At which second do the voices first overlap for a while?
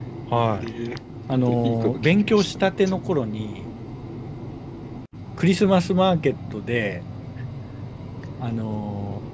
1.6 s

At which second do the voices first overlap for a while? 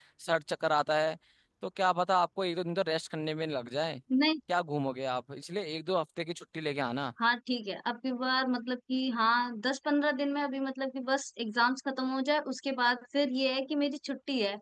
none

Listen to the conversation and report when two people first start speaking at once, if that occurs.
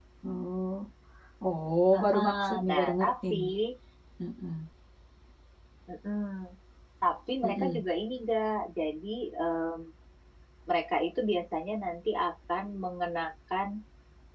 1.9 s

